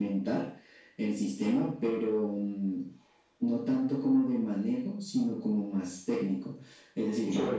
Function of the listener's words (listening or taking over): taking over